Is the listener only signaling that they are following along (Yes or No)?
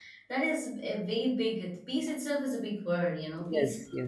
Yes